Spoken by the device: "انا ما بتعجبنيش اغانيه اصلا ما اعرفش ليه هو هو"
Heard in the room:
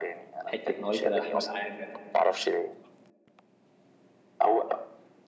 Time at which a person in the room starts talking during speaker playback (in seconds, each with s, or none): 0.5 s